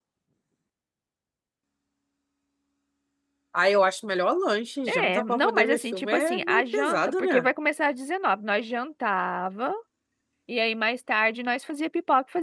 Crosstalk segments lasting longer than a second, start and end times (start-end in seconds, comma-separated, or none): 4.9-7.5